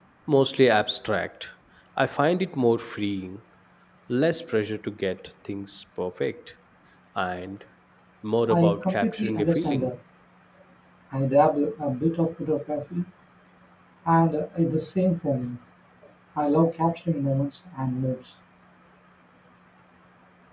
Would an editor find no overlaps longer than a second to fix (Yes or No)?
No